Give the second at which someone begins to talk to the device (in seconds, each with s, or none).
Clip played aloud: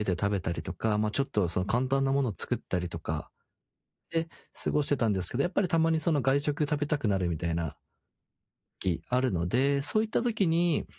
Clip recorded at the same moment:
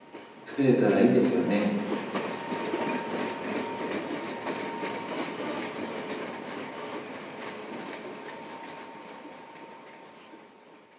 0.4 s